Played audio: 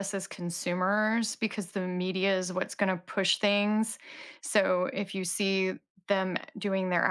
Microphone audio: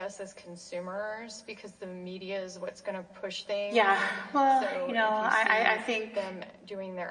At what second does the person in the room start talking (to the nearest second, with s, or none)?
4 s